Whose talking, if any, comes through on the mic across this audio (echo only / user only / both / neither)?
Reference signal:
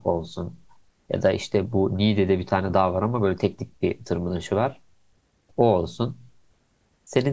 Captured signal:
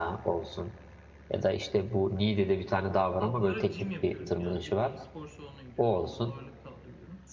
both